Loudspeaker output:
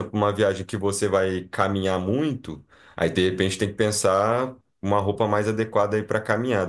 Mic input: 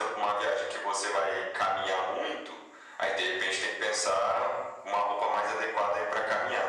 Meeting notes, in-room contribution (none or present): none